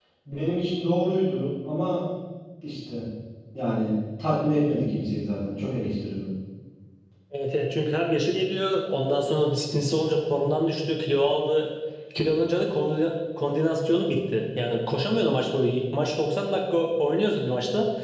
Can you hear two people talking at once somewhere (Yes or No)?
No